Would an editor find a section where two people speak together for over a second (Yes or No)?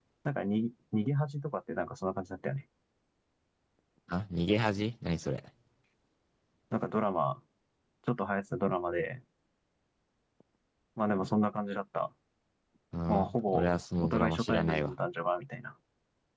Yes